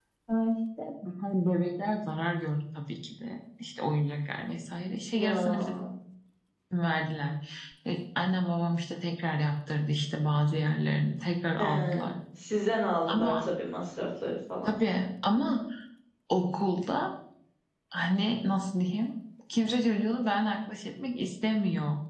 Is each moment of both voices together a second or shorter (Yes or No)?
Yes